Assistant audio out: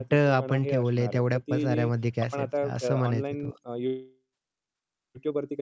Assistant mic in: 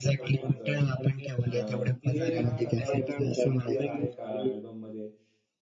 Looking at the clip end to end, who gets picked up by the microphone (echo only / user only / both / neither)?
both